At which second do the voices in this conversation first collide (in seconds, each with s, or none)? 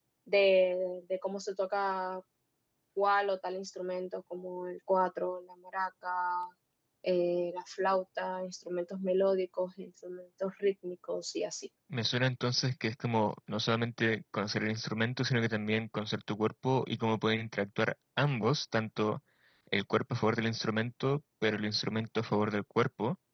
none